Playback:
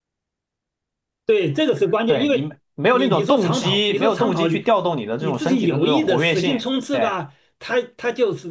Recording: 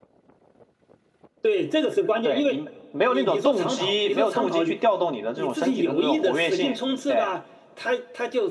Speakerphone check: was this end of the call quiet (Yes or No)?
Yes